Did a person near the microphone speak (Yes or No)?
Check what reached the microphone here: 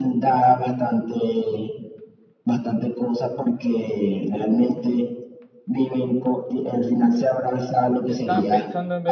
Yes